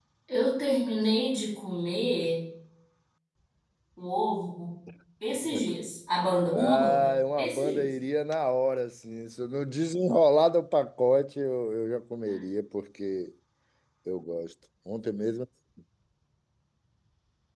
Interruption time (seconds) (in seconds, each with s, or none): 6.5 s